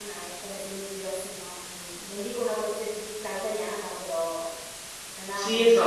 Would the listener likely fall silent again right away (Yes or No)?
No